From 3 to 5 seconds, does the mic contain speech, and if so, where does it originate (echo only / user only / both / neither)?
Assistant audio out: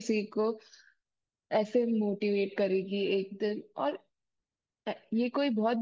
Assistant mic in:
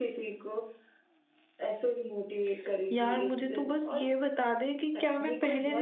both